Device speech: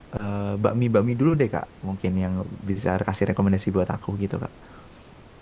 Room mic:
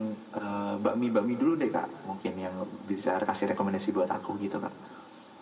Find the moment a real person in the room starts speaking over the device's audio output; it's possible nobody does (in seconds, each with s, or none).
none